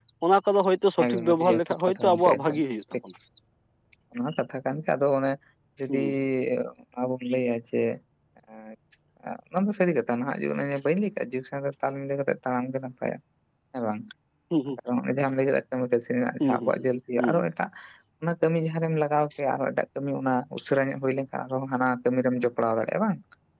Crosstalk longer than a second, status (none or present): present